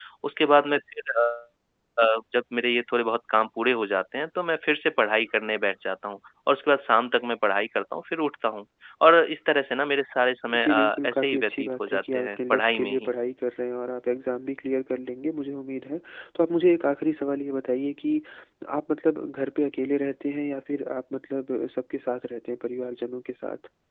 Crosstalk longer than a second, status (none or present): present